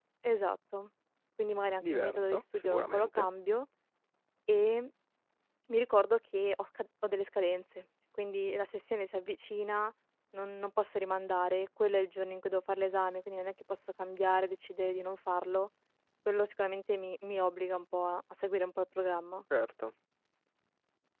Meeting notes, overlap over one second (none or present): present